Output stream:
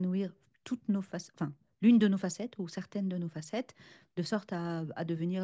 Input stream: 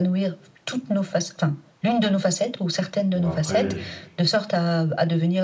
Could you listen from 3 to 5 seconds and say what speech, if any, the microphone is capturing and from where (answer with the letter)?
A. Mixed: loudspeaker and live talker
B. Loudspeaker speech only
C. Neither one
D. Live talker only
A